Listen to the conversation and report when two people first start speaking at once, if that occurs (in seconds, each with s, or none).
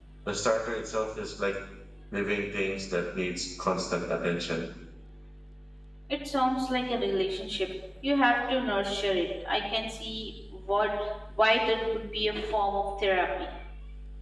none